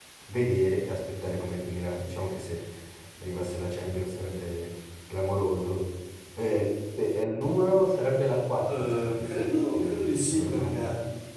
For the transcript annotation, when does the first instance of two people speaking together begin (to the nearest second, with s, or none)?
9 s